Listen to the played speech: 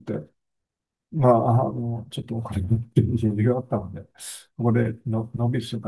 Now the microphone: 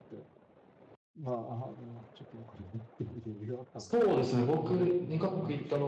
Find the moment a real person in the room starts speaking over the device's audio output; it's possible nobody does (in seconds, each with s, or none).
3.8 s